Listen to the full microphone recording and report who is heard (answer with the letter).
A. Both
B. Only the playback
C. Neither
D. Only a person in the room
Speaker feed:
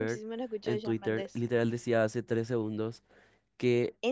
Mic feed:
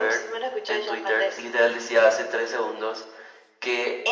B